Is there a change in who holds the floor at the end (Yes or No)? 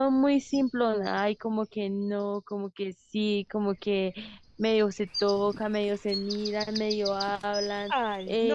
Yes